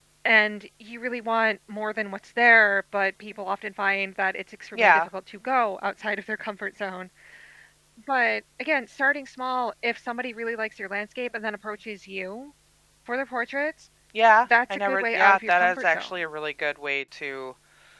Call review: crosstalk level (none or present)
present